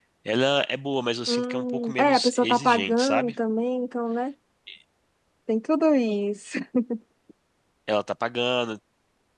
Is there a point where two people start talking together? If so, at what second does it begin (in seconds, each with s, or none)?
1.3 s